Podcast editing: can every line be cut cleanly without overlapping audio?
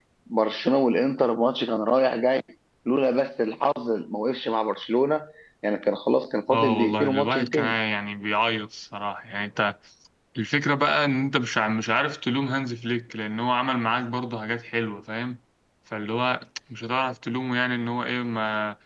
No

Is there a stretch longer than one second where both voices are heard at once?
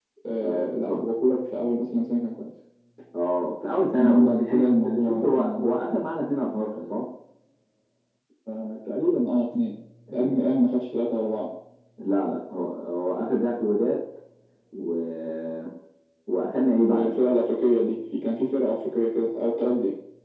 Yes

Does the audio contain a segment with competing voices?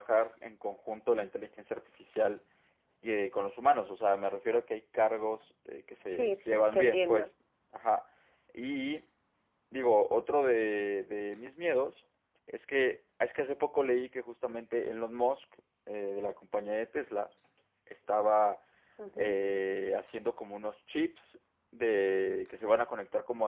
Yes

